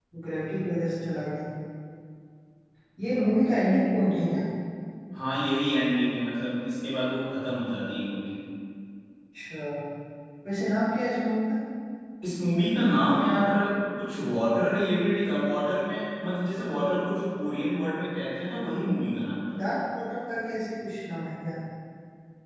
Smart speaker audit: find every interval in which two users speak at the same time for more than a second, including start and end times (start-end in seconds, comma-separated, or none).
none